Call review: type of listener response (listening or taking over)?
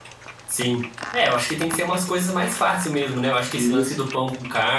listening